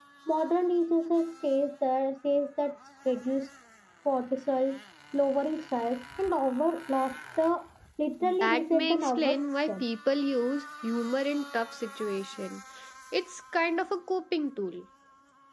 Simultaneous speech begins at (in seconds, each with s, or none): 8.4 s